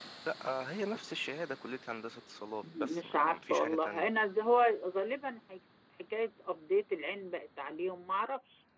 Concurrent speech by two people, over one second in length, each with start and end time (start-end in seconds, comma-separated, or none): 2.8-4.1